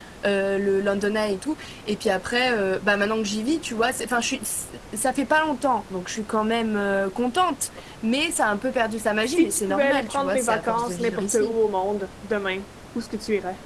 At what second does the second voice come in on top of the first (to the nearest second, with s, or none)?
9 s